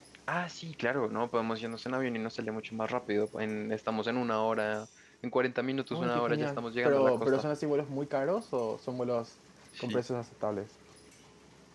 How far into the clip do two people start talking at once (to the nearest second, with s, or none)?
6 s